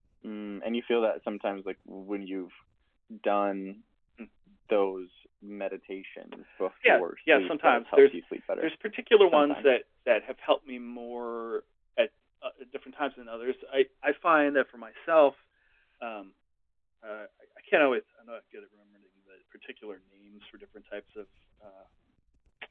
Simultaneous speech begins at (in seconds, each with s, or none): 6.9 s